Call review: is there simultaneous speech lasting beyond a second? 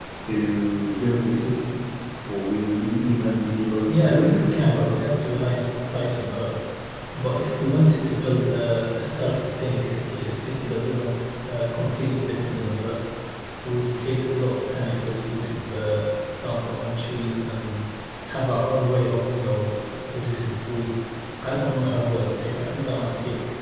Yes, from 3.9 s

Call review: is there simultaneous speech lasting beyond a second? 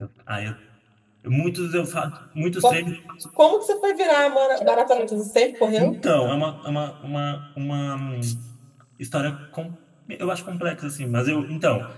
No

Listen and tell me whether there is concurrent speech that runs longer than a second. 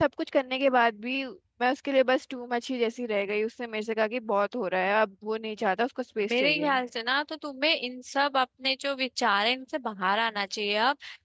No

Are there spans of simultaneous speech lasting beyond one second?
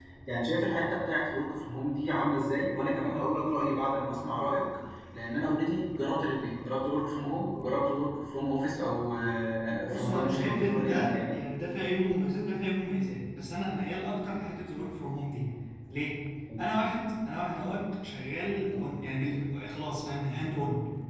Yes, from 9.9 s

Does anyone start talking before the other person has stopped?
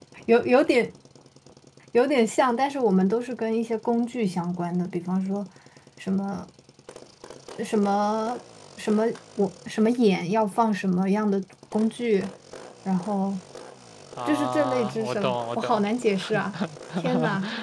Yes, from 14.2 s

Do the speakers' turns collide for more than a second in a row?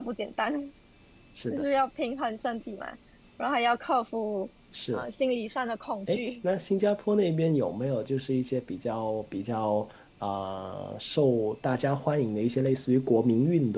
No

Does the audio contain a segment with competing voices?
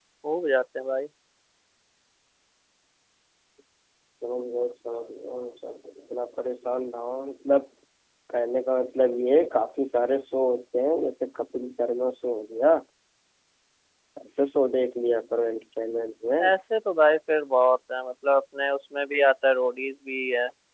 No

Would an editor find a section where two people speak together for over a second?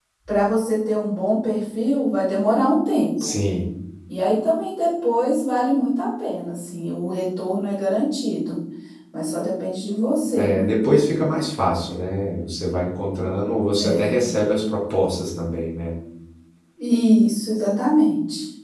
No

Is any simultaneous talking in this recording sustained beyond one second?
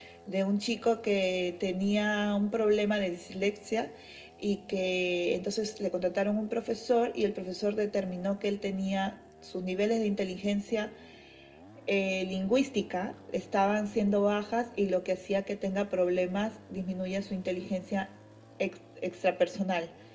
No

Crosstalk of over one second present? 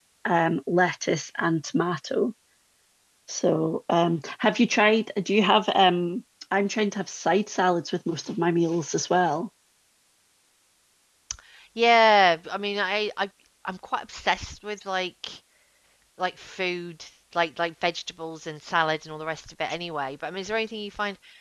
No

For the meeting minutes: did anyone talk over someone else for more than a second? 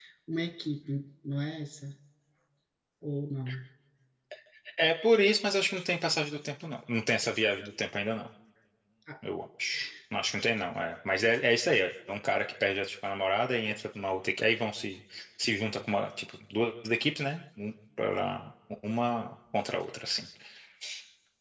No

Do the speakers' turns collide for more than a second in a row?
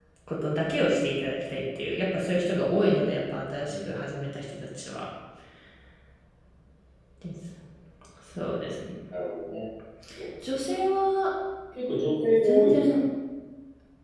No

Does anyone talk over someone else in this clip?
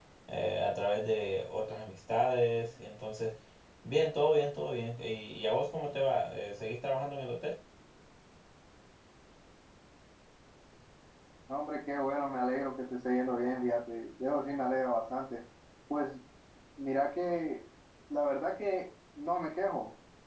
No

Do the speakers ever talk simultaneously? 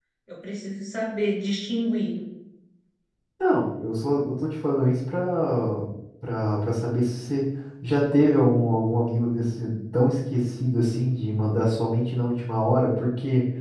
No

